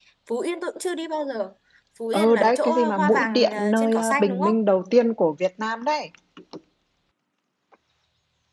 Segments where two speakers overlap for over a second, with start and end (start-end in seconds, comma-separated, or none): 2.1-4.5